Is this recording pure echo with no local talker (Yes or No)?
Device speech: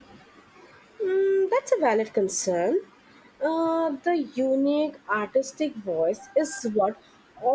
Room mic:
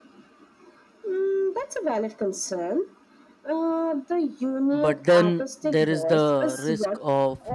No